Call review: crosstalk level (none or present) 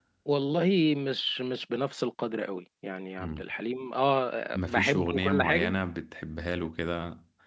present